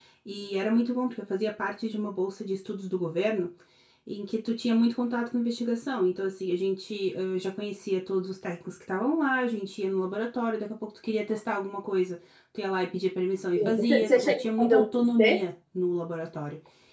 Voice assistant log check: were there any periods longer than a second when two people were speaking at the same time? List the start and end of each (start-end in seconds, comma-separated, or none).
13.6-15.4